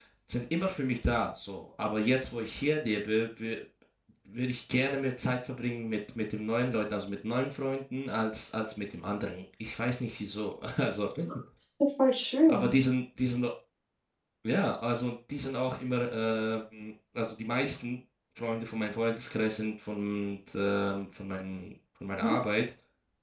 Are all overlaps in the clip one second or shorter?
Yes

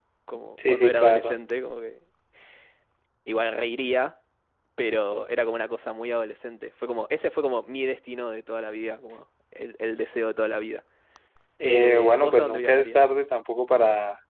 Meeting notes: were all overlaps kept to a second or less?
No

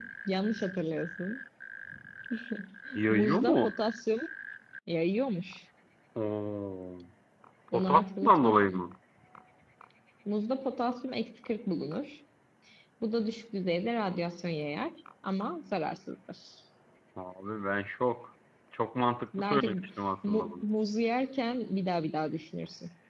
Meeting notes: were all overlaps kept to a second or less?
No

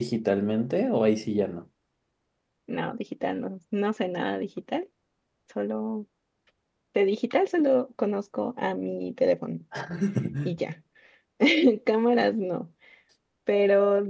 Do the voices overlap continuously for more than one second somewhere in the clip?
No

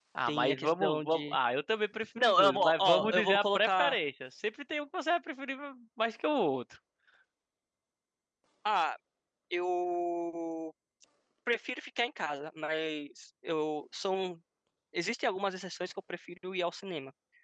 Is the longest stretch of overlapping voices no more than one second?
No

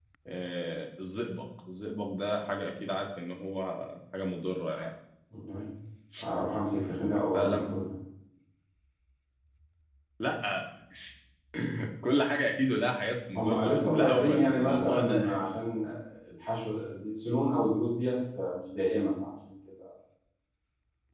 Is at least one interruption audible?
Yes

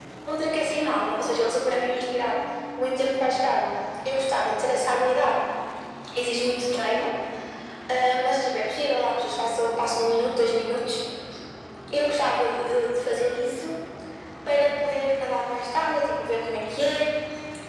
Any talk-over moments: No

